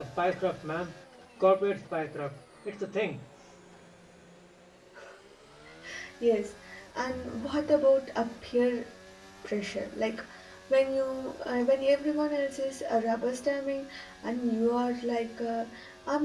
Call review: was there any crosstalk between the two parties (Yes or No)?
No